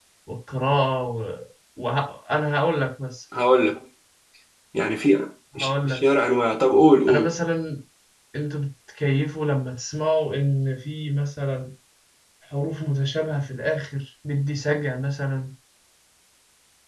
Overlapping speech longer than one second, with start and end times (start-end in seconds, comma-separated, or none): none